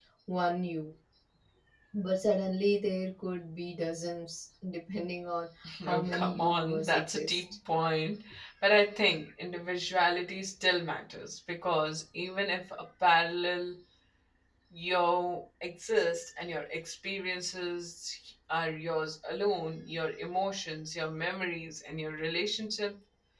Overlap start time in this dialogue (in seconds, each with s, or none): 5.6 s